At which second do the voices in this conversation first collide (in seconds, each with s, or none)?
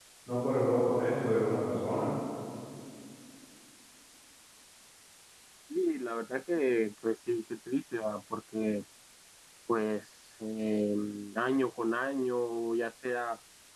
none